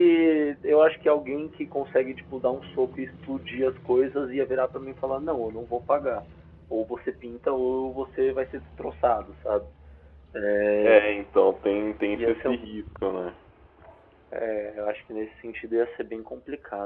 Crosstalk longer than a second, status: none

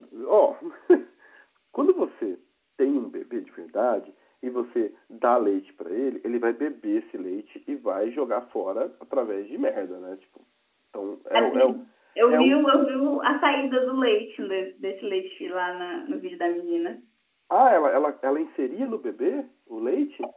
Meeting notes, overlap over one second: none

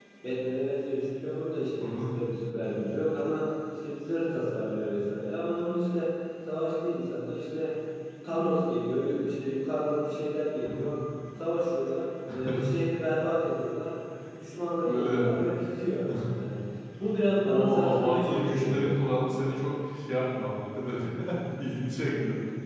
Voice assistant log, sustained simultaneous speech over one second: present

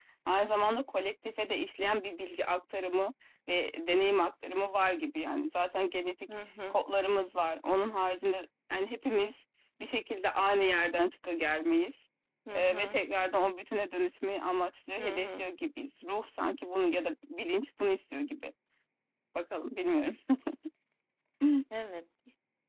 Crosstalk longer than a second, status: none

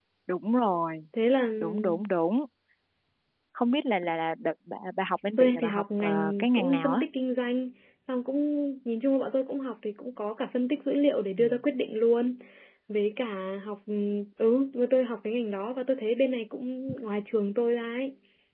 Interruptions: present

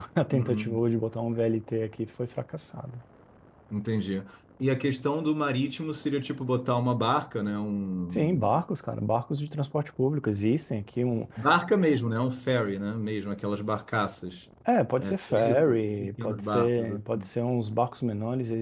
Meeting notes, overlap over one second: present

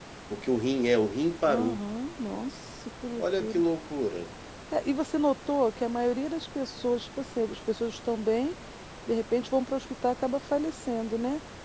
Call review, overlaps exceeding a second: none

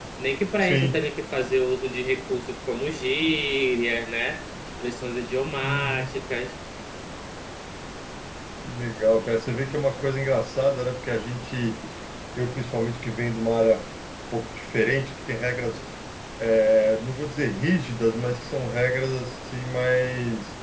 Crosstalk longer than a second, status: none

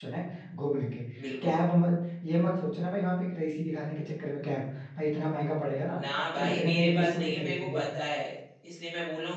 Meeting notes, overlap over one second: present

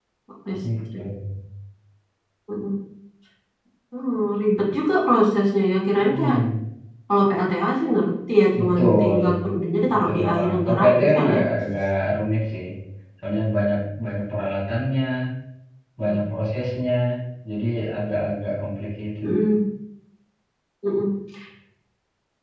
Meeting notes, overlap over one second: present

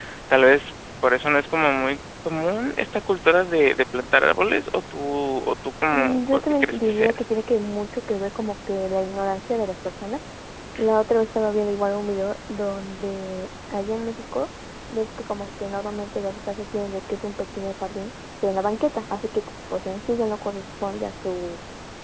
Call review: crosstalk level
present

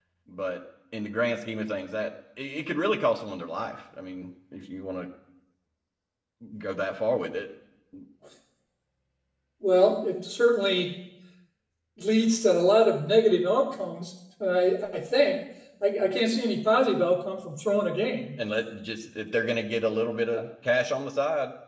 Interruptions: none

